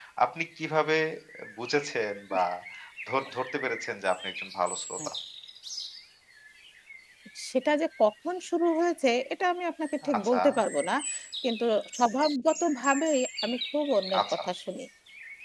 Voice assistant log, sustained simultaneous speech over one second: none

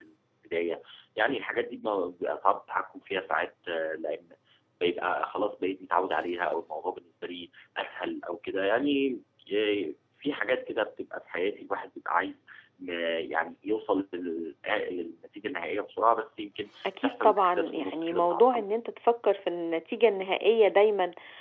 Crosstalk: present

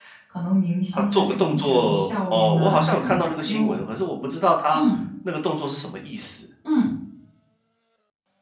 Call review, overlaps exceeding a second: present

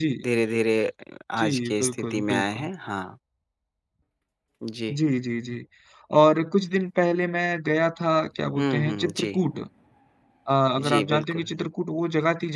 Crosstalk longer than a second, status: present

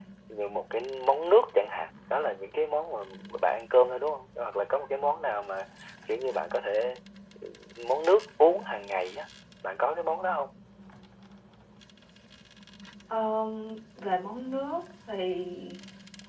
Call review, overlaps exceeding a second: none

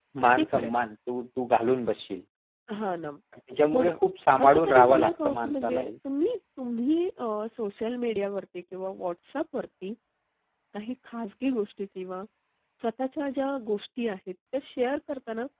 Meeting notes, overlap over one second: present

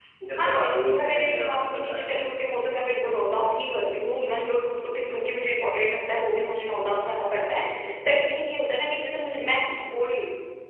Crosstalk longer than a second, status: present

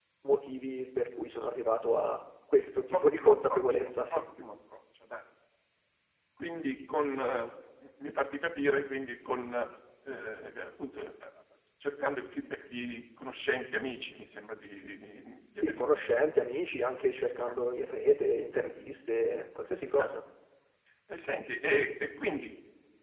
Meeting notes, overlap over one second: present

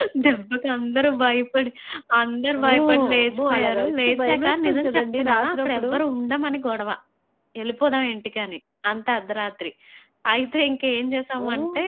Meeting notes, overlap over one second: present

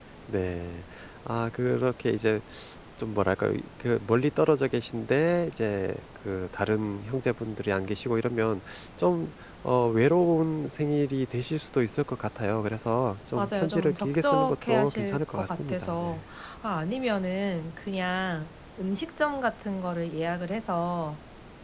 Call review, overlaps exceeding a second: present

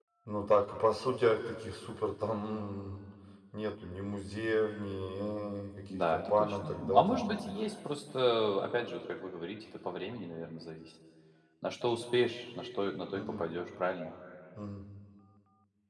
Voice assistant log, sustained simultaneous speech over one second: present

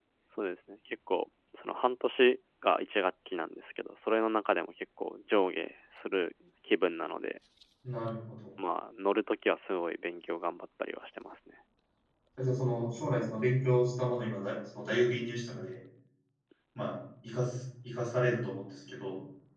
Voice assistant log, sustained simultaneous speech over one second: none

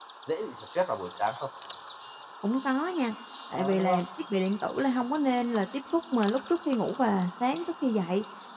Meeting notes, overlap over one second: none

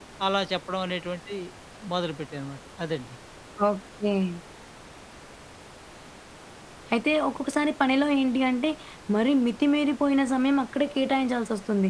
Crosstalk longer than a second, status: none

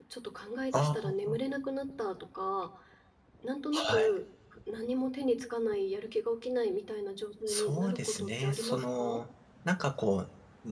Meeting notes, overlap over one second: present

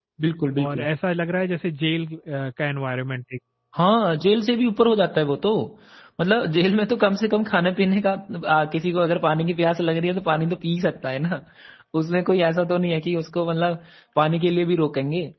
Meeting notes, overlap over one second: none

